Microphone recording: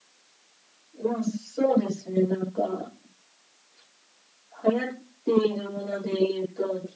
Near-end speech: none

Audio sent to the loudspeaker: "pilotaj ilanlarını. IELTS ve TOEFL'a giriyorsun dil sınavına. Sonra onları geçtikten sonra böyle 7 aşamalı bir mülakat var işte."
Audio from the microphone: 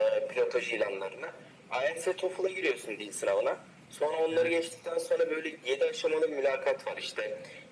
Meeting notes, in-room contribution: present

